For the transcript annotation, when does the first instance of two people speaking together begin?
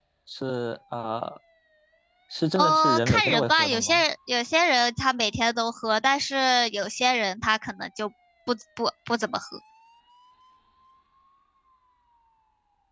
2.6 s

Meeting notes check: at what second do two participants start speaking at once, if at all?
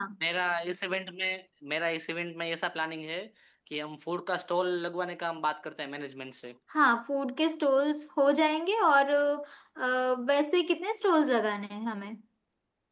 none

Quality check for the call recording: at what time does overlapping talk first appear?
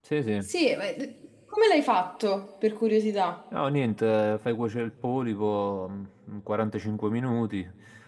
none

